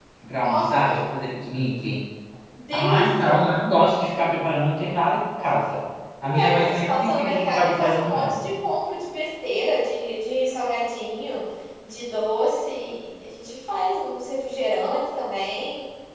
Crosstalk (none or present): present